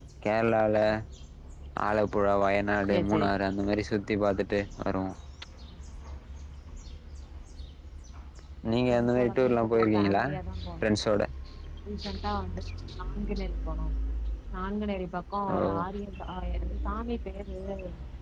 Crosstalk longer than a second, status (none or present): present